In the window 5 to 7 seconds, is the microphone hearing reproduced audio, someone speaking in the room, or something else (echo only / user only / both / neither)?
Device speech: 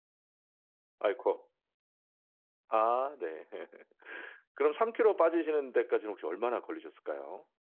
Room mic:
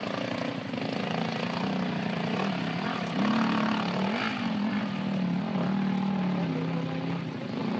neither